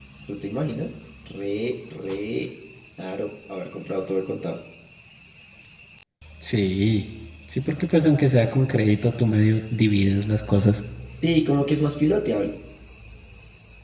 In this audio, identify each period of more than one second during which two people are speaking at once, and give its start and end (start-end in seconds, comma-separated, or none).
none